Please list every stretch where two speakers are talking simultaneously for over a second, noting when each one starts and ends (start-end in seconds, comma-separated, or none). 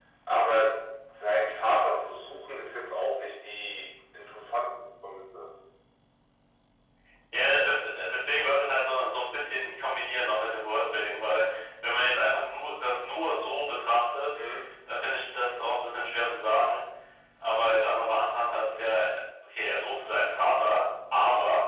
none